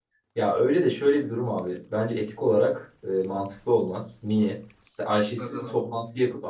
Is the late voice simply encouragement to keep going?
Yes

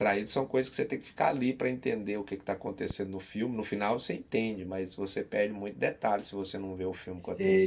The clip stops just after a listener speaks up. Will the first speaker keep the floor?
No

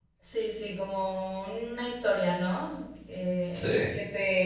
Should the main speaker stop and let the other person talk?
No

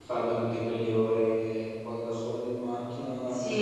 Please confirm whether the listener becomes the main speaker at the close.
Yes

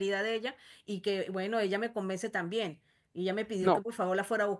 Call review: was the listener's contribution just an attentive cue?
Yes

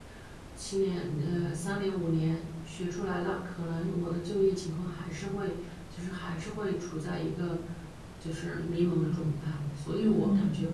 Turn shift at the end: No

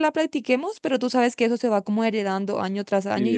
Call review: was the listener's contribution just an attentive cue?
No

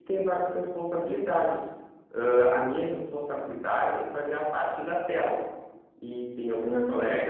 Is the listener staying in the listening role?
Yes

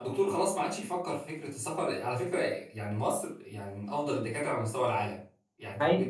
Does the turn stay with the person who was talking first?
Yes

